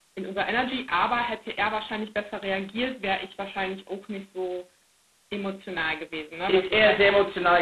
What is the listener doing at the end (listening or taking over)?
taking over